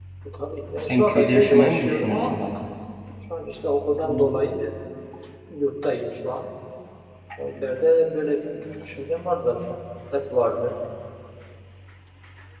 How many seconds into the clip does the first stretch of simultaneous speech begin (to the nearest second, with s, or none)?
1 s